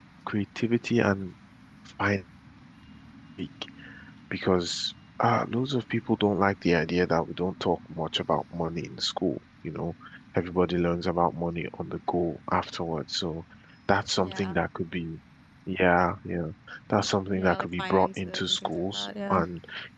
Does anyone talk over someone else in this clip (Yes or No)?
Yes